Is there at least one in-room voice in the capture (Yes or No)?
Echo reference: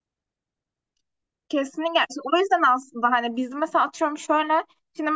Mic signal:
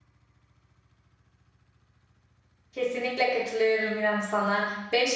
Yes